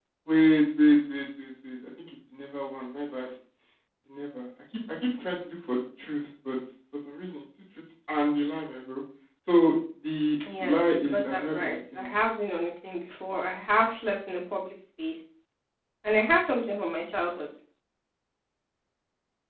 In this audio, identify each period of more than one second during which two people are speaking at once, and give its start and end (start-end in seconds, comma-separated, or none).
10.6-12.3